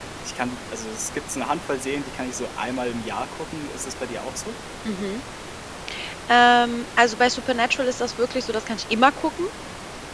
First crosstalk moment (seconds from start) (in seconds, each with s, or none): none